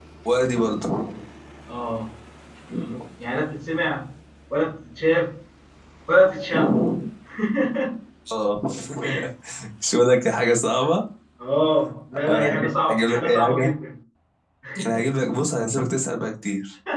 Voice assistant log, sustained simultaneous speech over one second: present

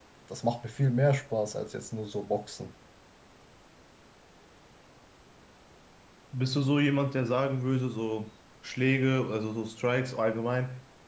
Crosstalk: none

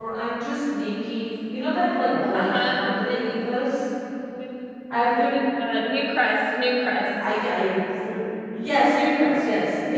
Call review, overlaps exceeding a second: present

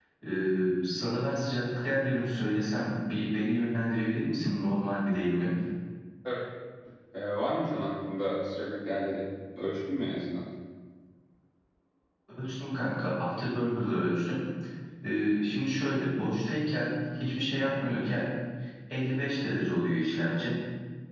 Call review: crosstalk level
none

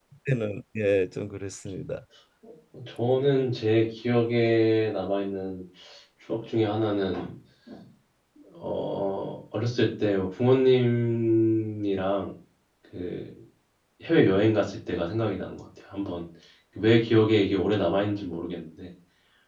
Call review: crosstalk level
none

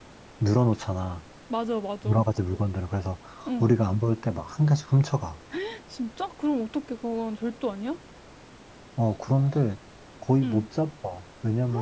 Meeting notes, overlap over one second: none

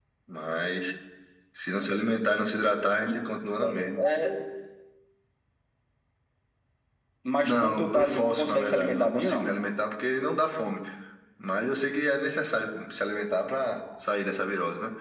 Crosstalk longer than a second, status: present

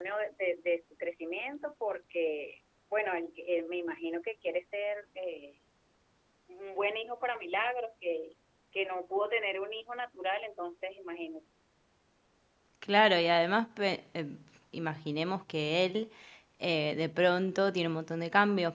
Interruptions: none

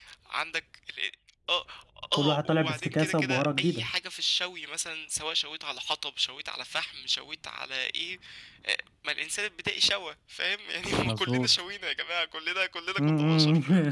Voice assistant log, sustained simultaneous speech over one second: present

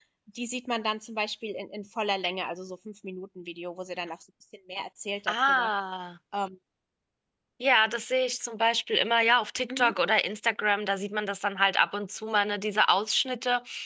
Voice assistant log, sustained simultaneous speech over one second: none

